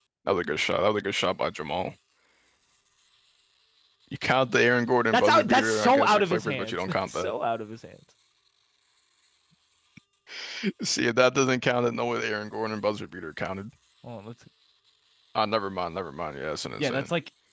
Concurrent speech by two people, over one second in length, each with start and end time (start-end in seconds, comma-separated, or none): 5.1-7.3